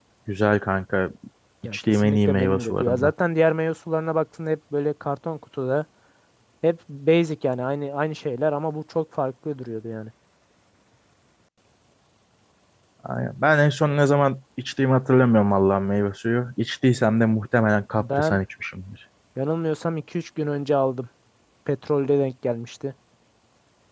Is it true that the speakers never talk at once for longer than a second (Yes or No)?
No